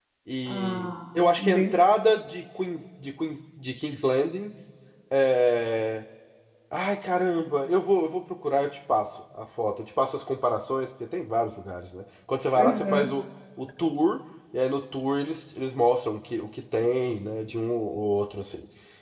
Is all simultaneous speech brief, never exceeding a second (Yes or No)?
No